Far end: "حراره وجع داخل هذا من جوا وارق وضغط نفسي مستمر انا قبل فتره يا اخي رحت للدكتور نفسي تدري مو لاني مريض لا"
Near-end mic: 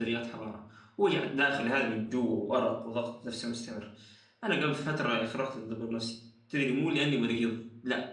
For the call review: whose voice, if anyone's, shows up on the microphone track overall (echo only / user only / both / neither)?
echo only